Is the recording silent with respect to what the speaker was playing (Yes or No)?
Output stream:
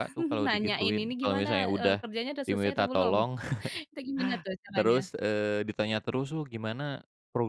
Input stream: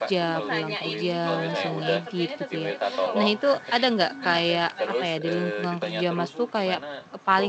No